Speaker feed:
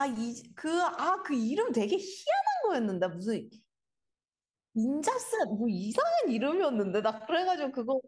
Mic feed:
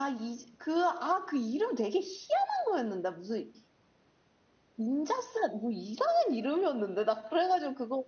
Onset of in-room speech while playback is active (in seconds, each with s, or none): none